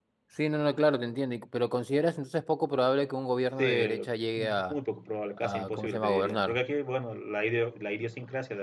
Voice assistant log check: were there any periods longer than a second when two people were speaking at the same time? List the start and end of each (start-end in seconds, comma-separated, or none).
5.4-6.6